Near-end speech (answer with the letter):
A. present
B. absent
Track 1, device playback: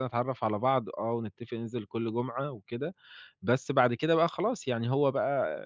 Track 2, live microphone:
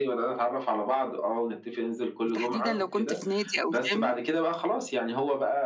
A